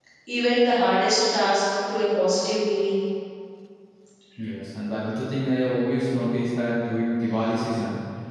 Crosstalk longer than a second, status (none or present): none